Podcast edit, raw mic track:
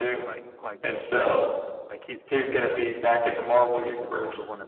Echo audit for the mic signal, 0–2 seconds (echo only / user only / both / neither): both